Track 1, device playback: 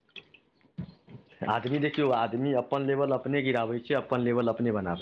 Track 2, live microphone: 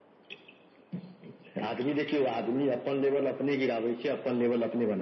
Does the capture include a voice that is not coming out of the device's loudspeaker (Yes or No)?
No